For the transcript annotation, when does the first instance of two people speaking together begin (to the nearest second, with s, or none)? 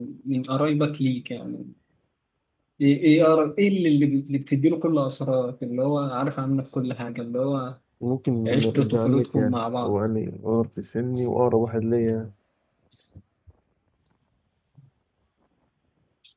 8 s